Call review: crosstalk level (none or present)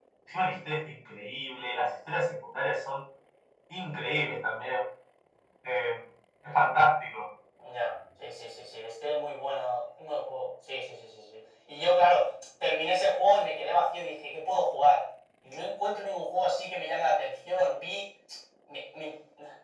none